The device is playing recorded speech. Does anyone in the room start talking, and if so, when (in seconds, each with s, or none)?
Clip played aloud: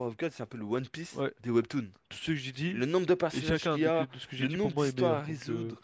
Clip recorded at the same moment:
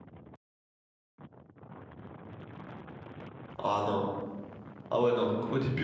3.6 s